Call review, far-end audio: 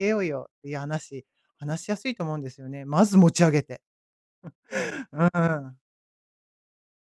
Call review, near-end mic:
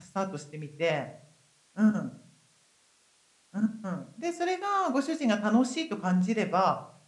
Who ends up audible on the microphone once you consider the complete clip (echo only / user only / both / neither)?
user only